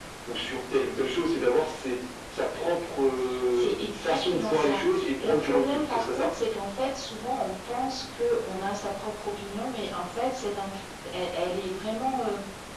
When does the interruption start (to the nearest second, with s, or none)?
4 s